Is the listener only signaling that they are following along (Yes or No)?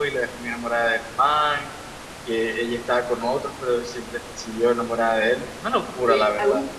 No